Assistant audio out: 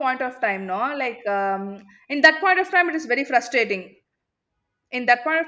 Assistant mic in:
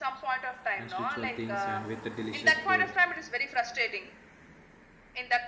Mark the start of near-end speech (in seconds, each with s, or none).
0.8 s